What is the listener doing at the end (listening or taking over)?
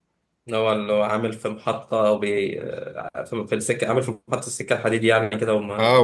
taking over